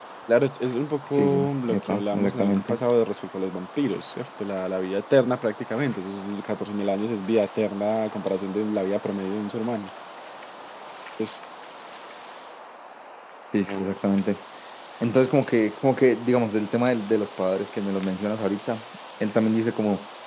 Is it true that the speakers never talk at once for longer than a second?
No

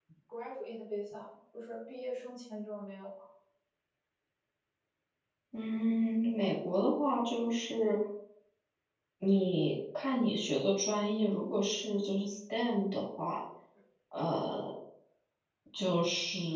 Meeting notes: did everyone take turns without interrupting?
Yes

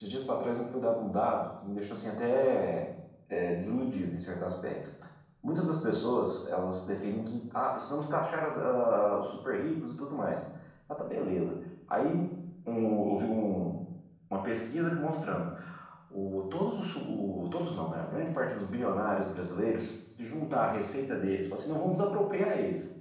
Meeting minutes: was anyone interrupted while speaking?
No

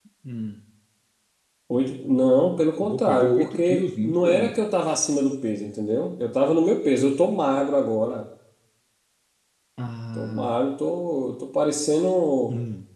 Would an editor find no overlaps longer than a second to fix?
No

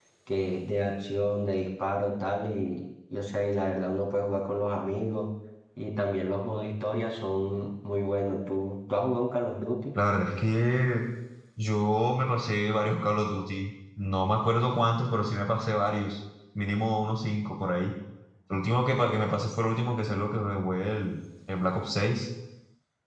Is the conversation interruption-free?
Yes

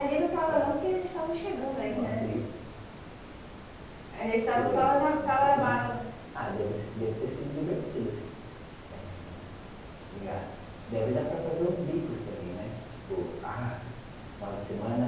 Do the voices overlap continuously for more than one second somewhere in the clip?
Yes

